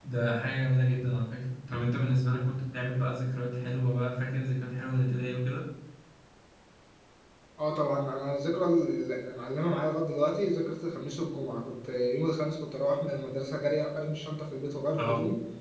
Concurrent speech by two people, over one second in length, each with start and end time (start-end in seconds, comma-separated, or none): none